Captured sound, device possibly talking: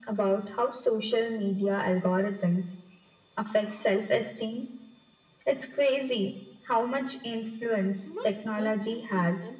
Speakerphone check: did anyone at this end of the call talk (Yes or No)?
Yes